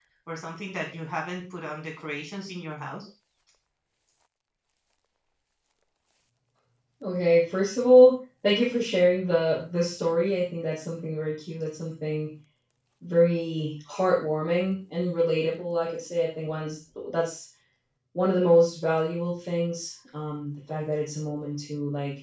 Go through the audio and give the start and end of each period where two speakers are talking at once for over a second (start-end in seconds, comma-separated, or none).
none